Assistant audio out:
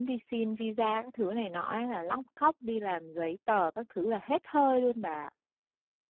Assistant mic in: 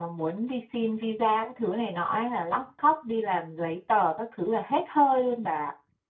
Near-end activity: none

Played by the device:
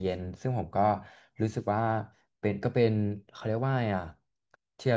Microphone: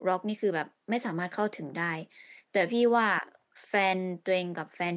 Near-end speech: present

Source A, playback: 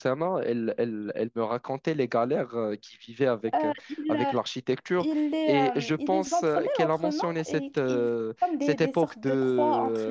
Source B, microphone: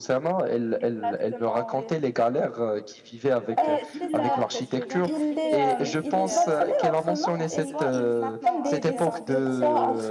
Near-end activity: present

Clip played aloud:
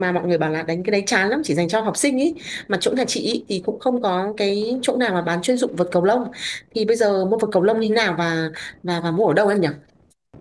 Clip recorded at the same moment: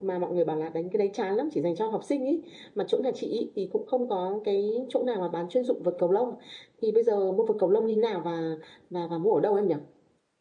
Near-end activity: none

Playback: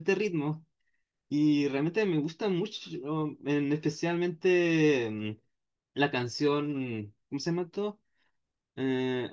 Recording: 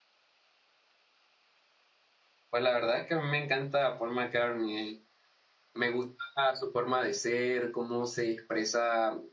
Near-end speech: present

